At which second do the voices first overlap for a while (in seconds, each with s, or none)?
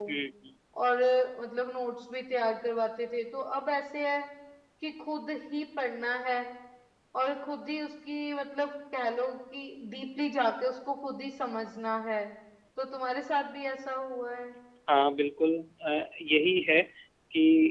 none